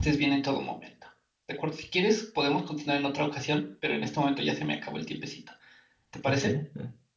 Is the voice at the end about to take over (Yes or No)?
Yes